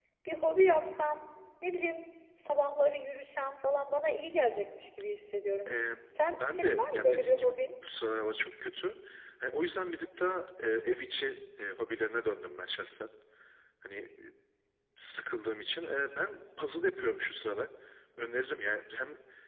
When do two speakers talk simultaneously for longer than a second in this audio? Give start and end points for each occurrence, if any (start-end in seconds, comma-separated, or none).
6.3-7.7